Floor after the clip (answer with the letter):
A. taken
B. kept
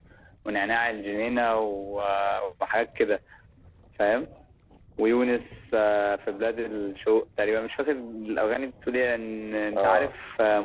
B